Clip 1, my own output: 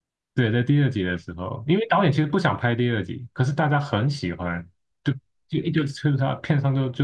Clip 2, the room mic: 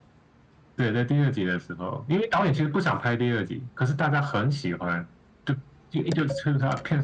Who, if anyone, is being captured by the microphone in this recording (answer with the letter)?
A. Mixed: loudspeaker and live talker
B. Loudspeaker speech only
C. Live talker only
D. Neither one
B